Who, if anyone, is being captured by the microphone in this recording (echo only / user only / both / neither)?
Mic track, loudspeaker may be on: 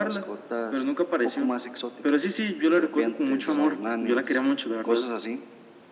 both